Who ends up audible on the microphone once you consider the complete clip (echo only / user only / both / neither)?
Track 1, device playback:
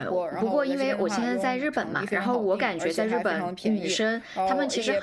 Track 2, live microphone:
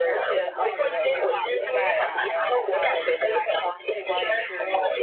both